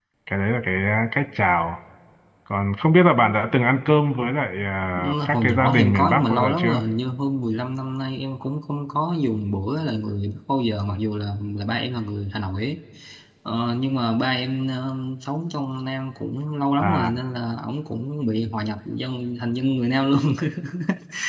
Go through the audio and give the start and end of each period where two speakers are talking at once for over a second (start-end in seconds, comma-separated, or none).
5.0-6.8